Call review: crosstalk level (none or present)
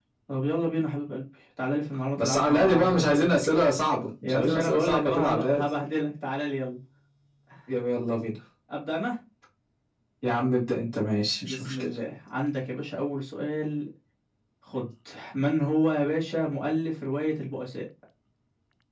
present